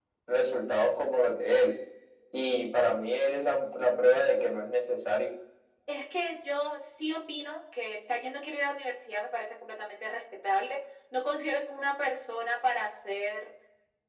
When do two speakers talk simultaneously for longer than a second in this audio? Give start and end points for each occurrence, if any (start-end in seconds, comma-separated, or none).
none